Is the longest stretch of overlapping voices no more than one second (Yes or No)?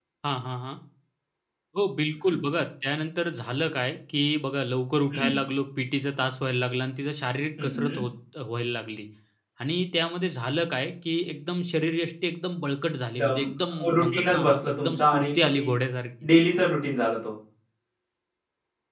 No